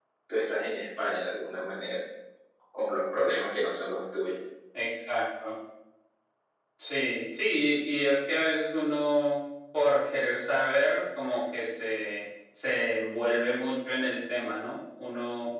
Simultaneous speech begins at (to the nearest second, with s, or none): none